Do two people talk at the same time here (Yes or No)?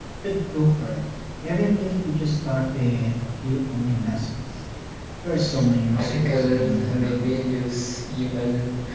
Yes